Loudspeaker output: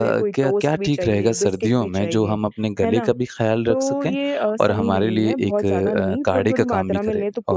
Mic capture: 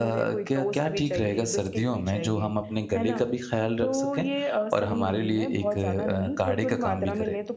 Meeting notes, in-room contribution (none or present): none